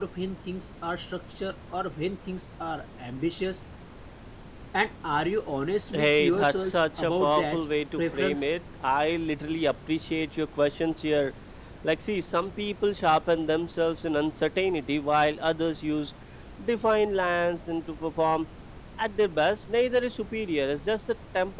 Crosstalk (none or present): present